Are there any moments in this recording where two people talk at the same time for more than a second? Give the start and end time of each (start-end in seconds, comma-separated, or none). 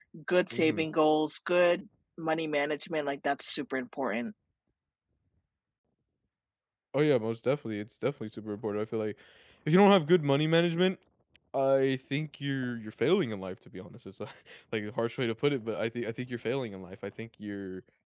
none